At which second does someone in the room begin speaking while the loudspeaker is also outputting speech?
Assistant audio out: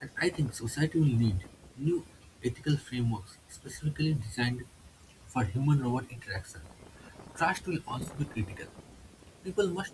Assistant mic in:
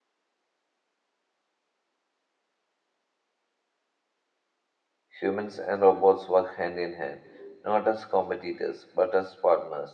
5.2 s

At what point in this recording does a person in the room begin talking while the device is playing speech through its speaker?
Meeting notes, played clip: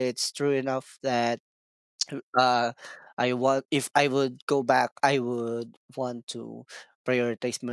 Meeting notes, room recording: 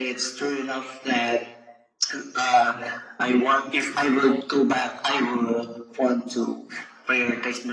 none

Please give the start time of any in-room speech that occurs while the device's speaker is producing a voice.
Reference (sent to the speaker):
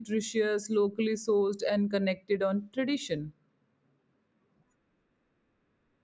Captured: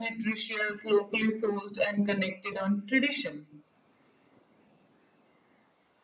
none

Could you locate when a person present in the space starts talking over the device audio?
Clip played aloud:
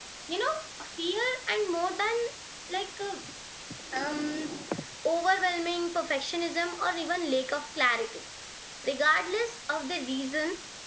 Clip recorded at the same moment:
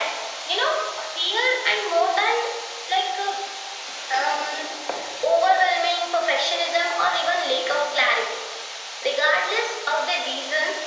none

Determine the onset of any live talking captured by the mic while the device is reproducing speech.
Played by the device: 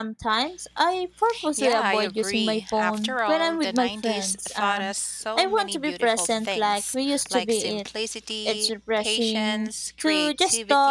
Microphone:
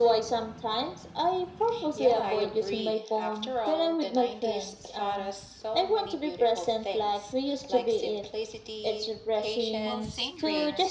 9.8 s

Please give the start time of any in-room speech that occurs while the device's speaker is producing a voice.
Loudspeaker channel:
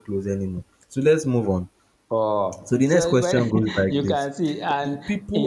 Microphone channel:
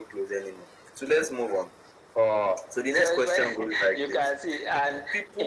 none

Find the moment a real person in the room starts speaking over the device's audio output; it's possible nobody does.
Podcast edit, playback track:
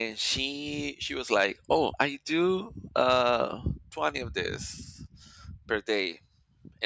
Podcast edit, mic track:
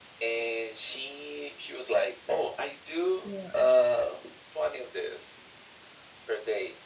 3.2 s

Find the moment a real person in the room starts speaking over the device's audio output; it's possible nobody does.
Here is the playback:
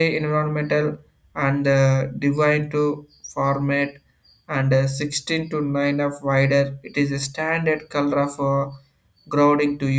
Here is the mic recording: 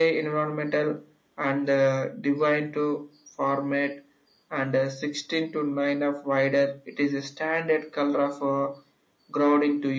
none

